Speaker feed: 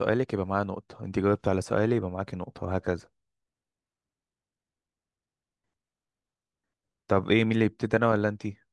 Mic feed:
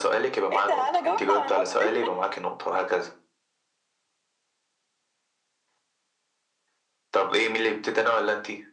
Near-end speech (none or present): present